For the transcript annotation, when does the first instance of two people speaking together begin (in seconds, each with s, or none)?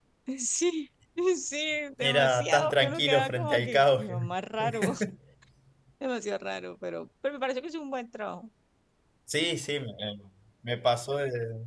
2.0 s